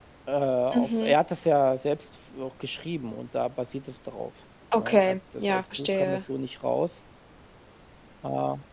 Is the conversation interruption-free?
No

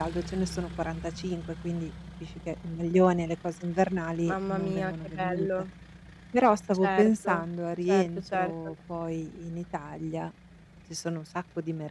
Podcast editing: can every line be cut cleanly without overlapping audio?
No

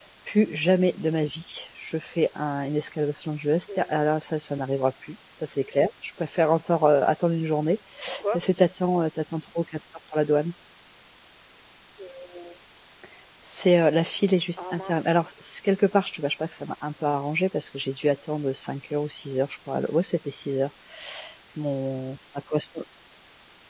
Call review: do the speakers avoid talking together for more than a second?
Yes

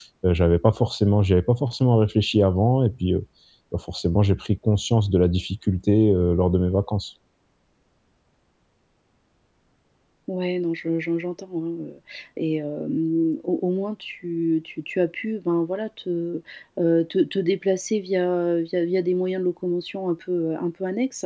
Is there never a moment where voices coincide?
Yes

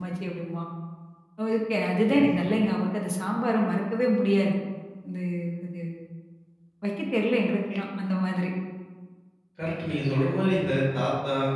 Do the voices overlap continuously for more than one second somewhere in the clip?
No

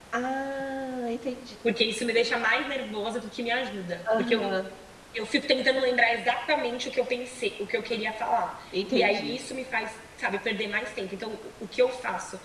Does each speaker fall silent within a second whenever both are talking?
Yes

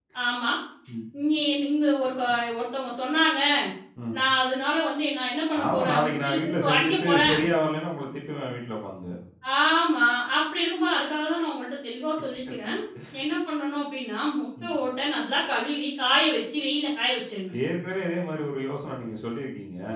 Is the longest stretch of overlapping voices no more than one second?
No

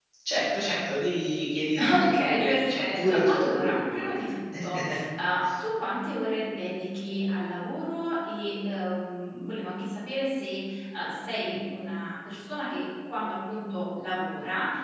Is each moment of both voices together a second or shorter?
No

